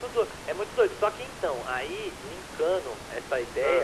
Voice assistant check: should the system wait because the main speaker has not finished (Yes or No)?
Yes